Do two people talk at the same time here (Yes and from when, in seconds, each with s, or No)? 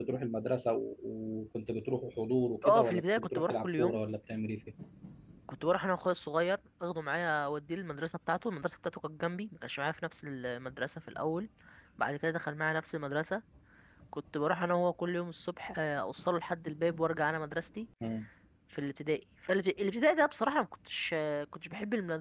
Yes, from 2.6 s